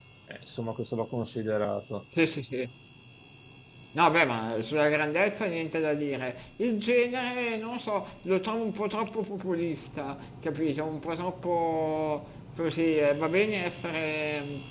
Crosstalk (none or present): none